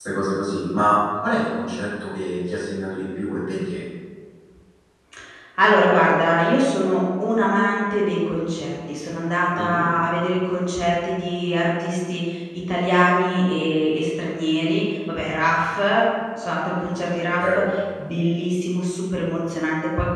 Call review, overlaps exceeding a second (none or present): none